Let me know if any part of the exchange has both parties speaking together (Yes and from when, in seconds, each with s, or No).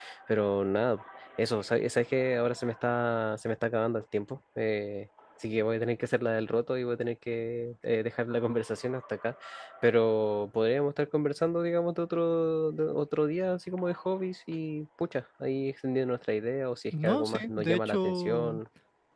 Yes, from 16.9 s